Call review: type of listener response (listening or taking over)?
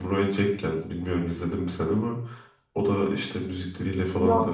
listening